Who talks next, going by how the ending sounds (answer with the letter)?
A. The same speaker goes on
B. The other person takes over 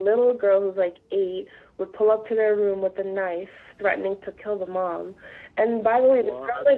A